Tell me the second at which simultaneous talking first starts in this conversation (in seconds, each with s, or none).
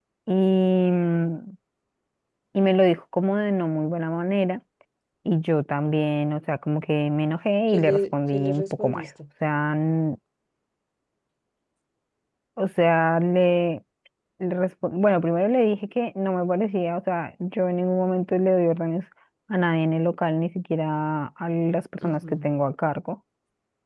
7.7 s